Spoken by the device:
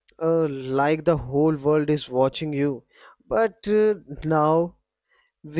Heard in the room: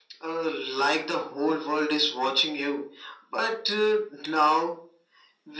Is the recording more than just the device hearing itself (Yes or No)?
No